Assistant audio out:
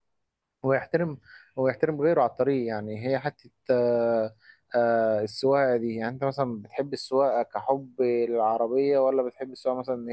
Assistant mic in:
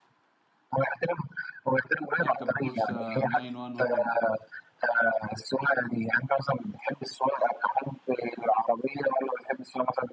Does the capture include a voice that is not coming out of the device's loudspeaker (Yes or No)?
Yes